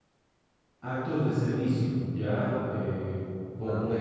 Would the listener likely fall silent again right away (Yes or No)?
No